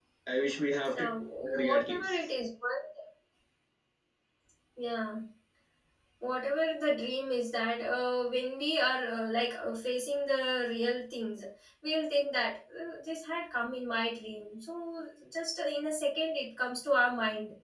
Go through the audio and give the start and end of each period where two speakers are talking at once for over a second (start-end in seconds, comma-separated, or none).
0.9-2.3